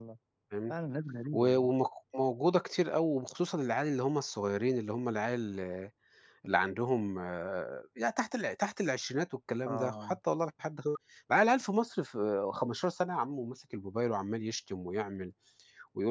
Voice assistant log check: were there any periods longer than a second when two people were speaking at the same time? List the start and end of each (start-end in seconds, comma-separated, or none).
none